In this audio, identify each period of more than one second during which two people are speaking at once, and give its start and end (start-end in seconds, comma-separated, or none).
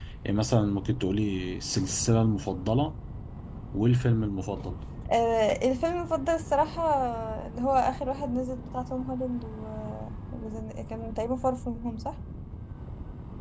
none